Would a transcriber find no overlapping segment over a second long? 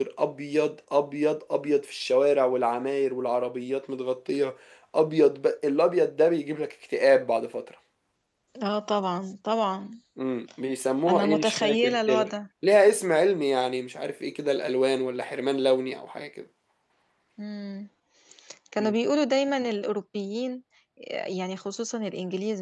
No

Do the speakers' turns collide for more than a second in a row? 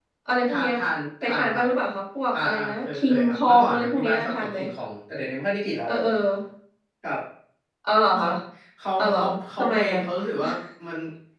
Yes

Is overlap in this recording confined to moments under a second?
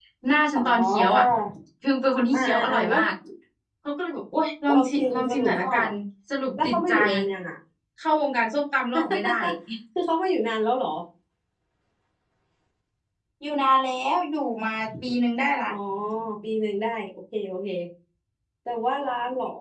No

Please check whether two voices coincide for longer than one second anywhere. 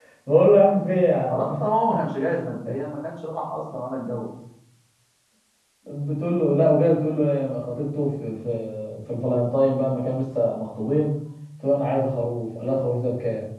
No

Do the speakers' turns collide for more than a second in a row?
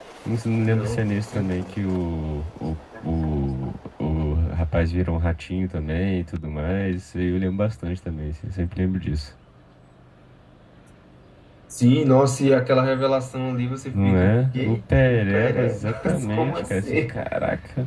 Yes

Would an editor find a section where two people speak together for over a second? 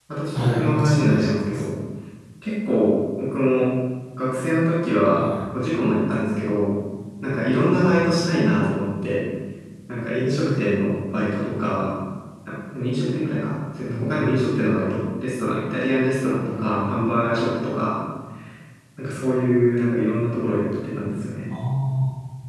Yes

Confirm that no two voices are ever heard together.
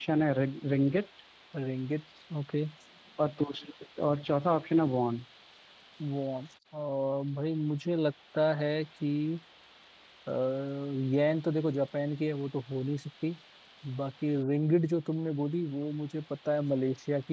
Yes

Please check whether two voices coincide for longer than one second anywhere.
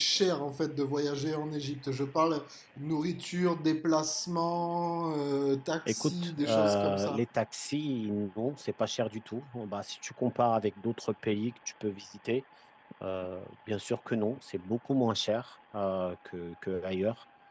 Yes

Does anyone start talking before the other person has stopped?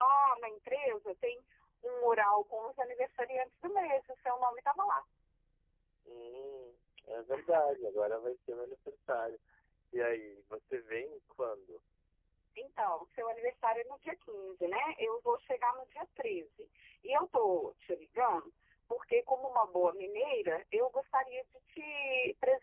No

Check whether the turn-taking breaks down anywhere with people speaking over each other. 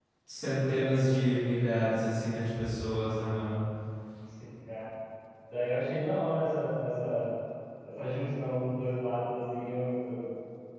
No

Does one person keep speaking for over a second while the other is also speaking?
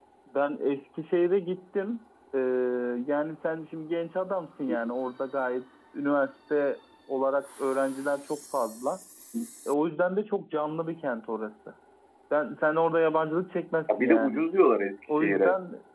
No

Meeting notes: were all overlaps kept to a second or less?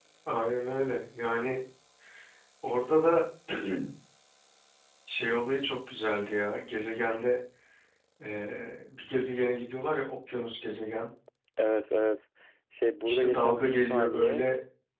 No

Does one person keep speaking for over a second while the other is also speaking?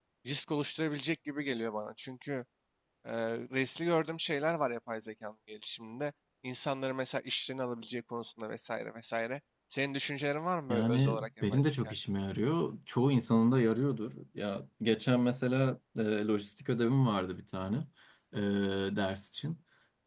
Yes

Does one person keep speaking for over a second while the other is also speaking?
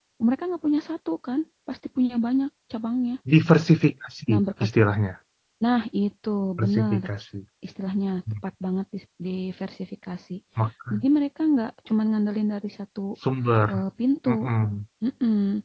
No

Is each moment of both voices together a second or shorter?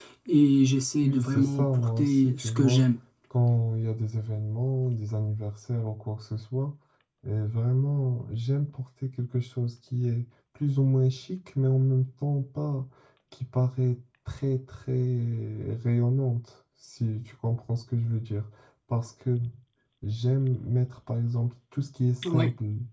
No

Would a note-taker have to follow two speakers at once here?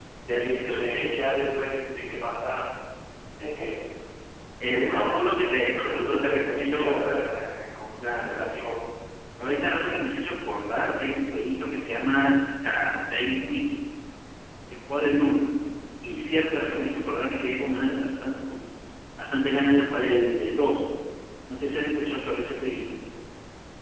Yes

